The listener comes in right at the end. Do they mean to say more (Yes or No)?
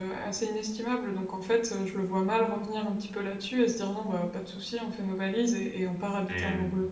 No